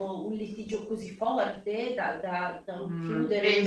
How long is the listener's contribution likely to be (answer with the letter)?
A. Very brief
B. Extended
B